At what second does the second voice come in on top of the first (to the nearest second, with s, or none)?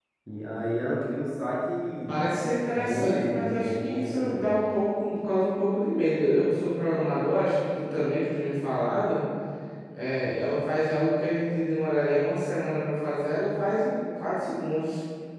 3 s